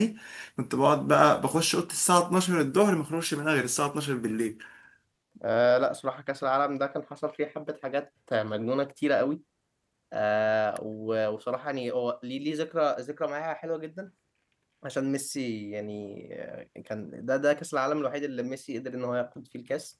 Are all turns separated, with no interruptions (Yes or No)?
Yes